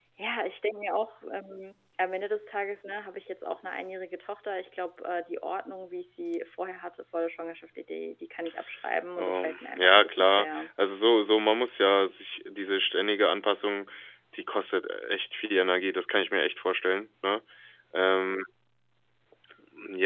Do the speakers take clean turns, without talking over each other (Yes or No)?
No